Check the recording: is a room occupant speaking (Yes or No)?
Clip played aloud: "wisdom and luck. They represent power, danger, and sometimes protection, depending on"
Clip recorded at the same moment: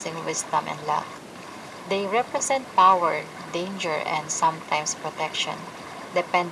No